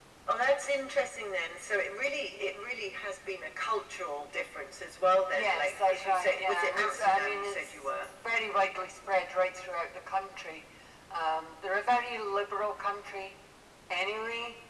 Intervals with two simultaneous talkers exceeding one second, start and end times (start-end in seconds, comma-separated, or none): 5.3-8.1